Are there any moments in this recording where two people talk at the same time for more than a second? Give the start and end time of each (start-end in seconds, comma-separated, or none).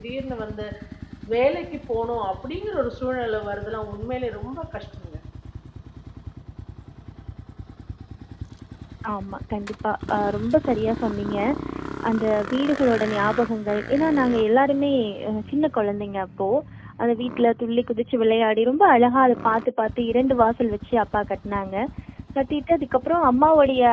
none